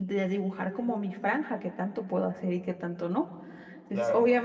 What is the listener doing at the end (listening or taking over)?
listening